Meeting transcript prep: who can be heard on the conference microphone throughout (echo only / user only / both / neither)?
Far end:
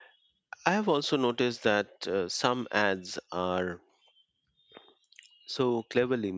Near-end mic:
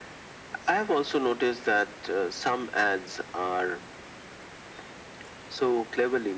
echo only